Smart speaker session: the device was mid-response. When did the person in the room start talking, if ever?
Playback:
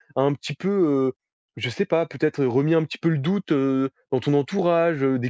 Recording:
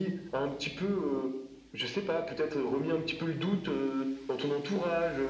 none

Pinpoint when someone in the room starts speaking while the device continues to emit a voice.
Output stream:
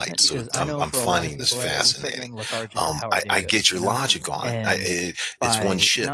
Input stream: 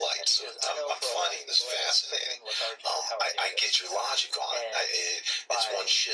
none

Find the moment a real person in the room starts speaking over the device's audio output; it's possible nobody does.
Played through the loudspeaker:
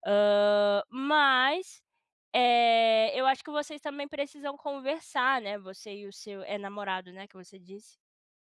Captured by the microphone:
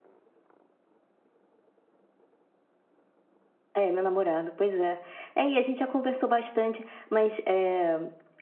3.8 s

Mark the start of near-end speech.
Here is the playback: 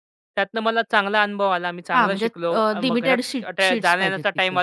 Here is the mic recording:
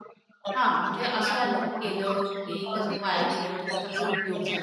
0.6 s

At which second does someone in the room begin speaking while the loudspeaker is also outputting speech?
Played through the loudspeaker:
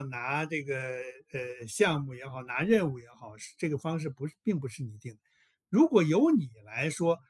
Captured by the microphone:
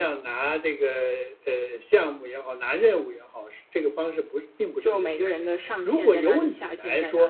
4.8 s

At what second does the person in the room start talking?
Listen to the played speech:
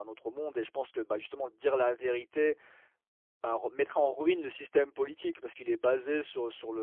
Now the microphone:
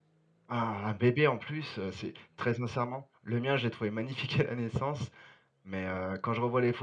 0.5 s

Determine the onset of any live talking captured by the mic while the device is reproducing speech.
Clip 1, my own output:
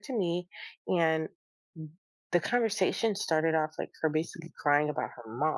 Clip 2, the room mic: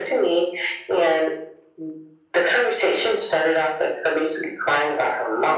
none

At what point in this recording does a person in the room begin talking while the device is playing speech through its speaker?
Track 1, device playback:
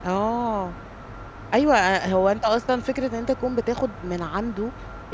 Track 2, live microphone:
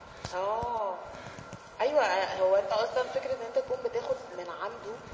none

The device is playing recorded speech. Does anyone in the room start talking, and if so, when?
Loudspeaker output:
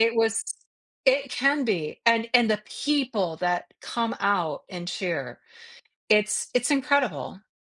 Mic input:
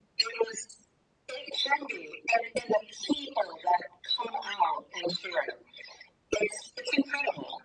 none

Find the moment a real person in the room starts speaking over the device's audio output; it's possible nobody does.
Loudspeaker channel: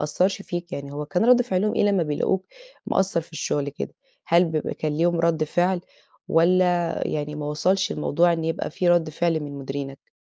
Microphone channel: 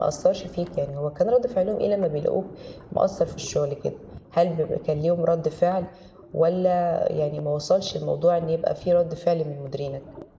none

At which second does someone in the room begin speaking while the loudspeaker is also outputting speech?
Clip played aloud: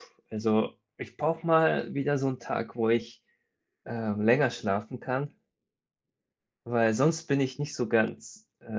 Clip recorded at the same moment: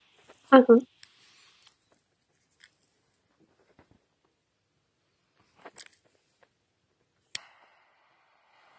0.5 s

